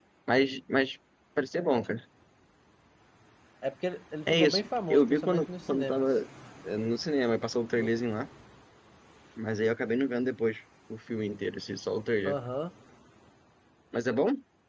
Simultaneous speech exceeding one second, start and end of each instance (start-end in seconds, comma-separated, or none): 4.3-6.1